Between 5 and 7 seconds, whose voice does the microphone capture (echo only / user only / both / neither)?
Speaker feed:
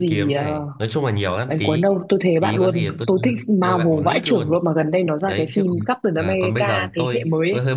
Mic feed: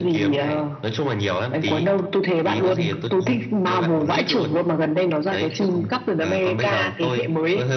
echo only